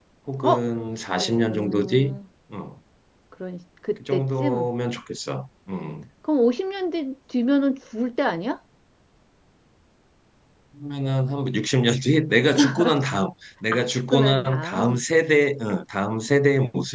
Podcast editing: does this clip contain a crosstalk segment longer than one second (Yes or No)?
Yes